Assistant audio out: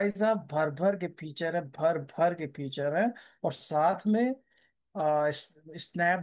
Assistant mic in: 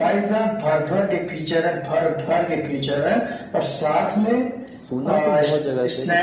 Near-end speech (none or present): present